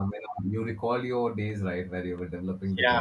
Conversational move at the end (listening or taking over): taking over